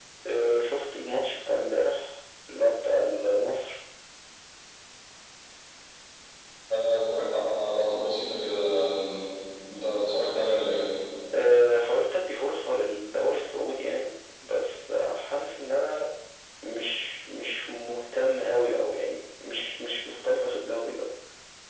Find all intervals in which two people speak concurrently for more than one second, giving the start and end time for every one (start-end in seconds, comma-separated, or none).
none